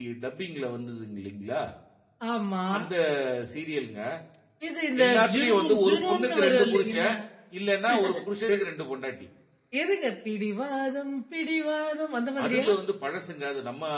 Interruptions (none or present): present